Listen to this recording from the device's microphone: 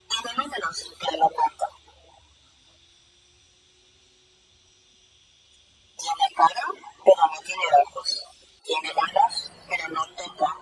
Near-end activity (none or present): none